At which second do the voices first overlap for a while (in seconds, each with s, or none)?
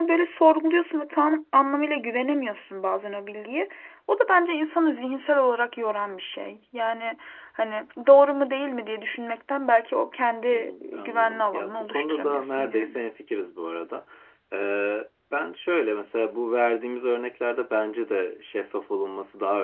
10.5 s